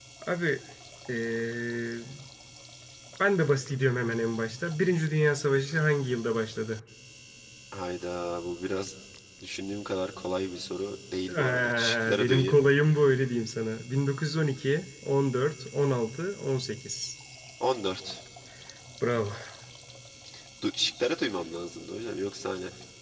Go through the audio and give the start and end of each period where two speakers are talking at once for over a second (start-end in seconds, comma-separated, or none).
11.3-12.6